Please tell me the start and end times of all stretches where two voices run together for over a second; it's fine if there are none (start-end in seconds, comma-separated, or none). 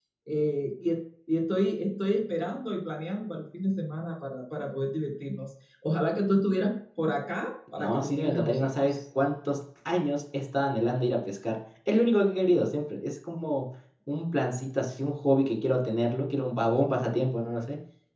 7.8-9.0